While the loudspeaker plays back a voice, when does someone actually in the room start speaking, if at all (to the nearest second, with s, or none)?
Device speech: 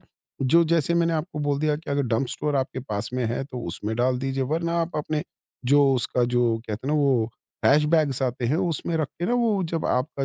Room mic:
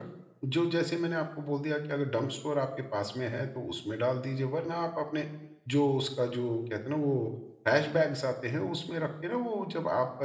none